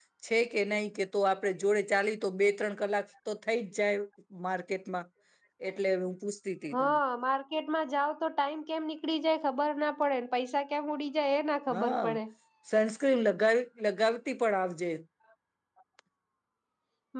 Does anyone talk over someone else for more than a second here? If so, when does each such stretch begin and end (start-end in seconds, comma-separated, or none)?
none